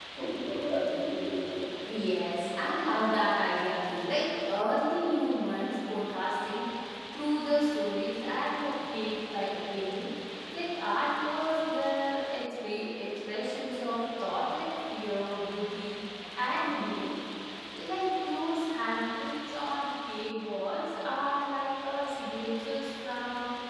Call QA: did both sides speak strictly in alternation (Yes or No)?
Yes